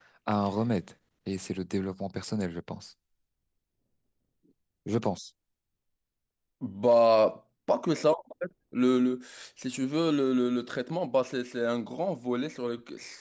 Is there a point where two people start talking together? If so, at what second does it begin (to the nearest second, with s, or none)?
none